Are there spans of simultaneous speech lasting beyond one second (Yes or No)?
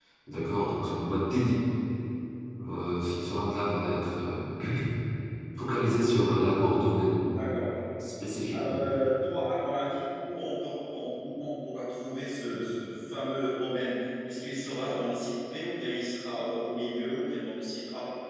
No